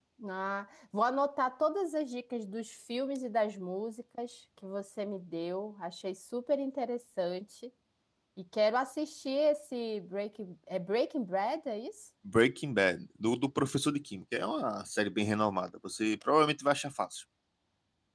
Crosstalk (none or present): none